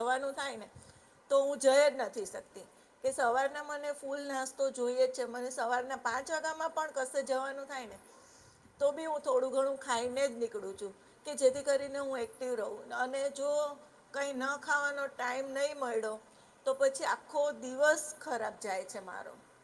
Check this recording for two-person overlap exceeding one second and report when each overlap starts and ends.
none

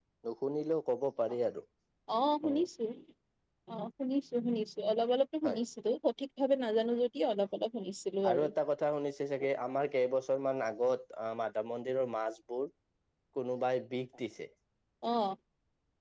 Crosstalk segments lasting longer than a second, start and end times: none

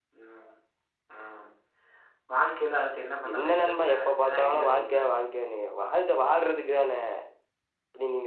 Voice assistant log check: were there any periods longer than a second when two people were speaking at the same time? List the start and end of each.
3.3-5.0

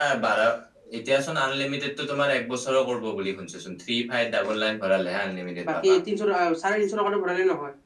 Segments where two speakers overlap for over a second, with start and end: none

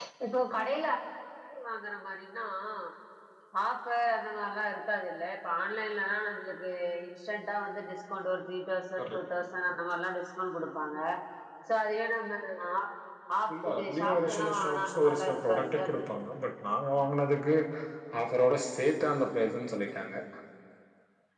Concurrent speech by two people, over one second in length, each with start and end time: 13.6-16.0

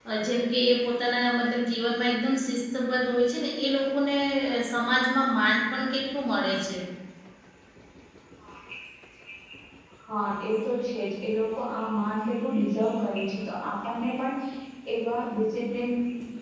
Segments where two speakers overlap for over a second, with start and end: none

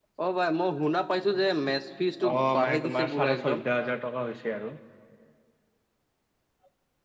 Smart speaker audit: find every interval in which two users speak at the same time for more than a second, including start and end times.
2.3-3.6

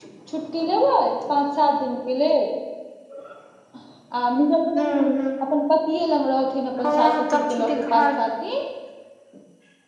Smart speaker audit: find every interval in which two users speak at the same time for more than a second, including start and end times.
6.8-8.0

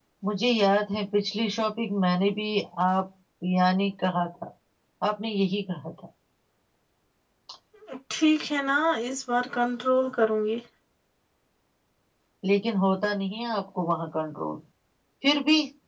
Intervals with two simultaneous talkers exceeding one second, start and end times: none

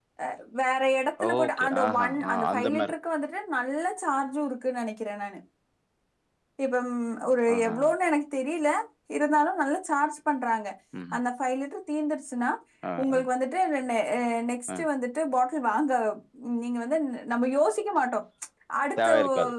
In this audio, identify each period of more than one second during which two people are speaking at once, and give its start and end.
1.4-2.7

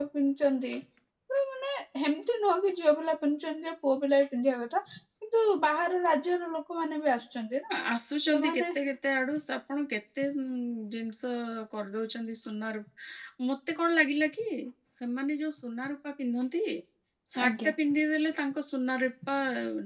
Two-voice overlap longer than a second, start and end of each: none

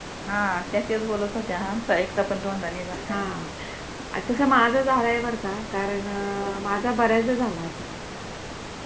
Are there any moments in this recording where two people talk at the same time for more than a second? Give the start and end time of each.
none

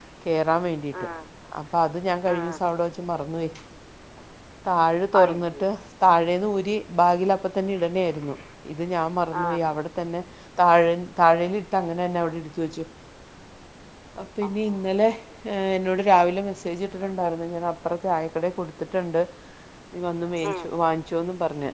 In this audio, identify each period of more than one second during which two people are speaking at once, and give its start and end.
none

